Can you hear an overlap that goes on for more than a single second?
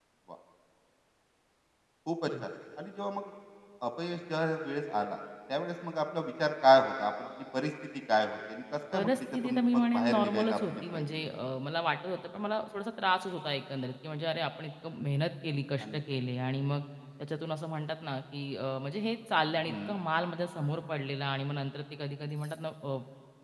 Yes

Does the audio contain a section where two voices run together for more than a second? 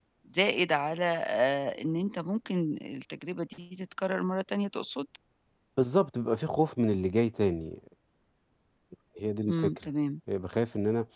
No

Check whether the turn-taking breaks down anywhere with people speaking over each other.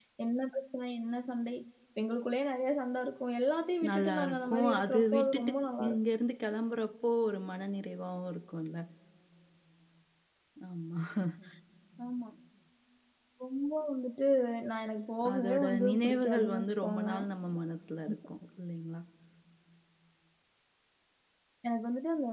Yes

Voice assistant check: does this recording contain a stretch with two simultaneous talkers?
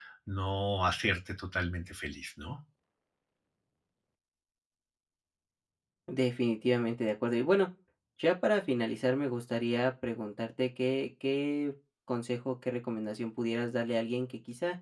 No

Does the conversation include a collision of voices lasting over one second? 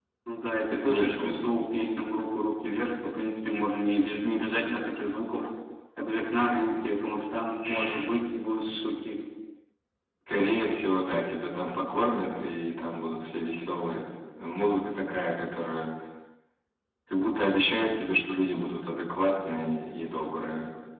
No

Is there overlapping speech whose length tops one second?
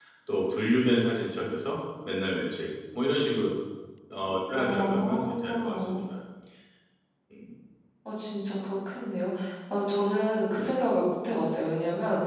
Yes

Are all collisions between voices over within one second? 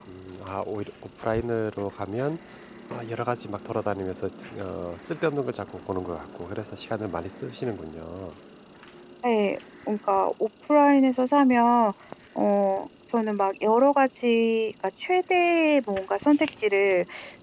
Yes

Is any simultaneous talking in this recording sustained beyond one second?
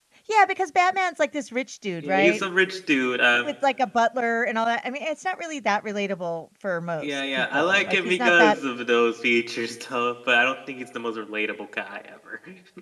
Yes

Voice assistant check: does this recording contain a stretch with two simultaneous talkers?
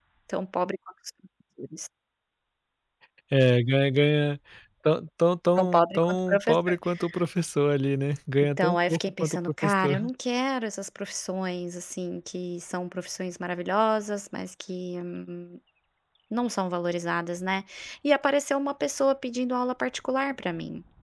Yes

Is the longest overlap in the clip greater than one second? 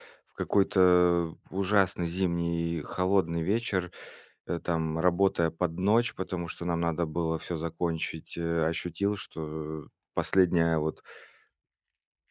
No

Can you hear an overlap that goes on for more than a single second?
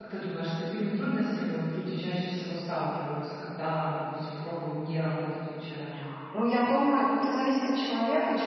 No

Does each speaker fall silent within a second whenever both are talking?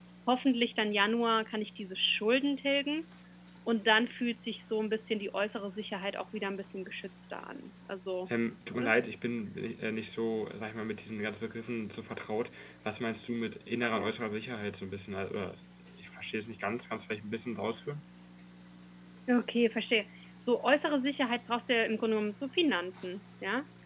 Yes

